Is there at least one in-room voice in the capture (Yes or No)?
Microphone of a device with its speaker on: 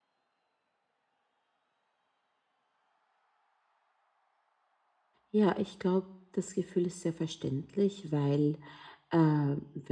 Yes